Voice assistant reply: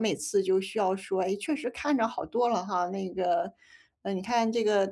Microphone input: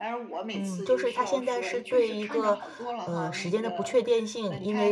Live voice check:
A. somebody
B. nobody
A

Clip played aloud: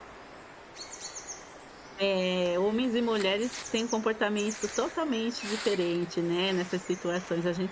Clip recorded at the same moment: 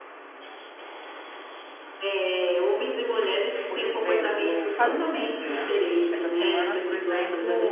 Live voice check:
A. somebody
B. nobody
A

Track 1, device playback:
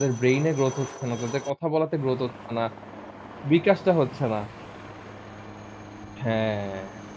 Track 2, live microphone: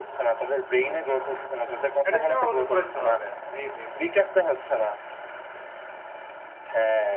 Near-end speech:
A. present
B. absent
A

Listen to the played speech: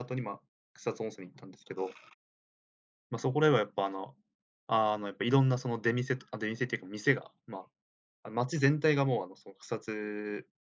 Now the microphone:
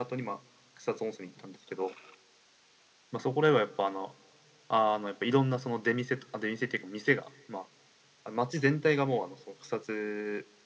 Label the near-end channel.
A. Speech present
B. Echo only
B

